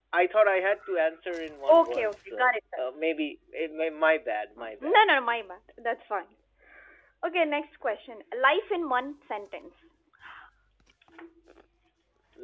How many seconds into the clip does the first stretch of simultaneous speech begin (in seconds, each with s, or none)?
1.7 s